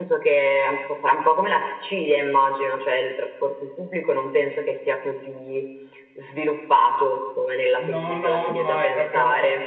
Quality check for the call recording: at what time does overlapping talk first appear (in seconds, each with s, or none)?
7.8 s